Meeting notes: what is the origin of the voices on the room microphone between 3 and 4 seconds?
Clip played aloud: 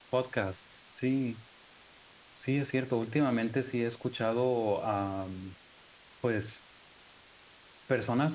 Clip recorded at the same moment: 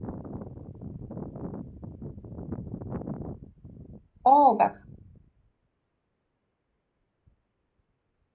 neither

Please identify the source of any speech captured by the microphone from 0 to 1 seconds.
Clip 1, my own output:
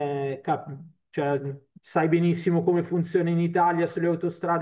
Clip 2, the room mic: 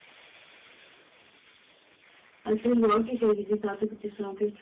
neither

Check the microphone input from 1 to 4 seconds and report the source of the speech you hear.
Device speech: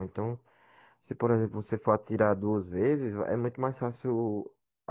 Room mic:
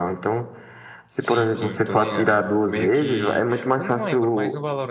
both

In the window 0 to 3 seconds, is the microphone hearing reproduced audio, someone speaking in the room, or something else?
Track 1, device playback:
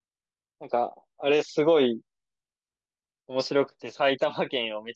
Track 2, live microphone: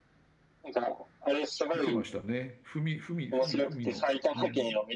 both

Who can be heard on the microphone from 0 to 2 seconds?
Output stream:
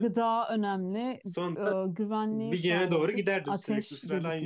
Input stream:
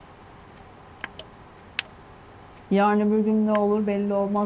neither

